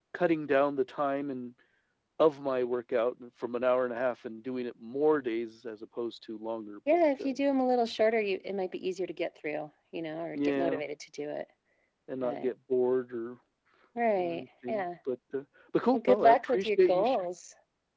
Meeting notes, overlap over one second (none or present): present